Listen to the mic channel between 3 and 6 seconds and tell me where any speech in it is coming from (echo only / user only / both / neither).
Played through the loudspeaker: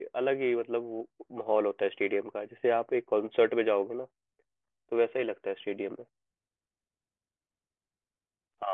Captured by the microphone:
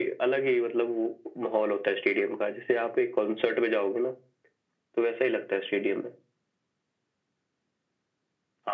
echo only